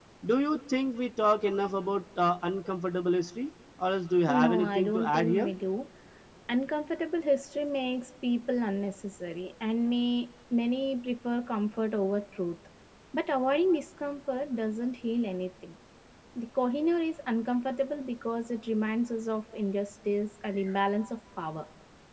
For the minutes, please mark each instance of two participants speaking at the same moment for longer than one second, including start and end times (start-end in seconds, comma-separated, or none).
4.3-5.5